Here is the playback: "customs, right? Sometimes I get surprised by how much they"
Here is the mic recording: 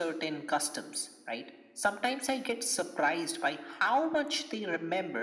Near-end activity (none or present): none